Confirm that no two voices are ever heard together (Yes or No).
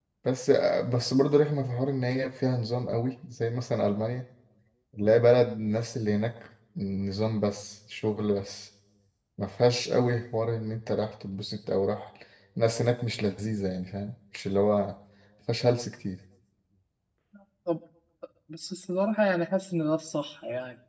Yes